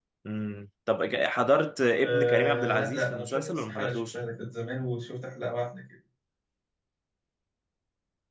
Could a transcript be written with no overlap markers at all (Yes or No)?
No